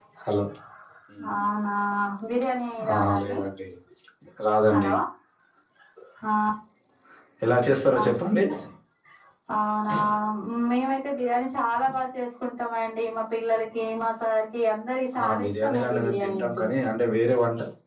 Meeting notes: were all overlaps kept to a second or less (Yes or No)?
No